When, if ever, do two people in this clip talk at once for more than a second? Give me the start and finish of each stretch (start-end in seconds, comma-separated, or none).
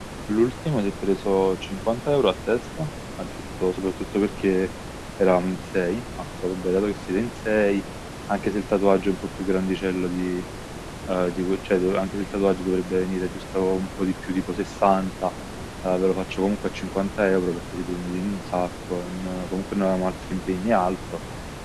none